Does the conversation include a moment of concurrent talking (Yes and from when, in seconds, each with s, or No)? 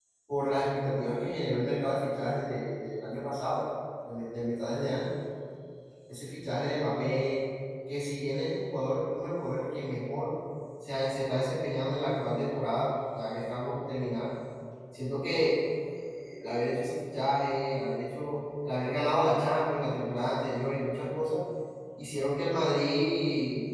No